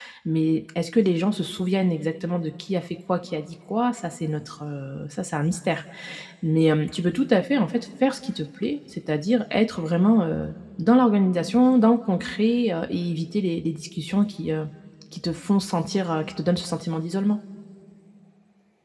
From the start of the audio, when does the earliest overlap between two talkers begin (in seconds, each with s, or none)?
none